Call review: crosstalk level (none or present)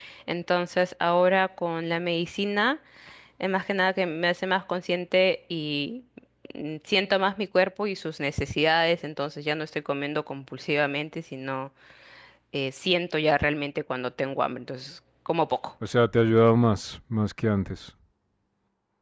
none